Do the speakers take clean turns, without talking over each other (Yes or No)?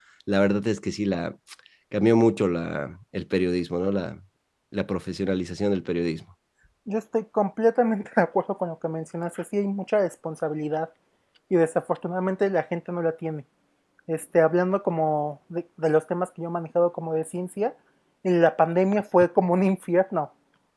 Yes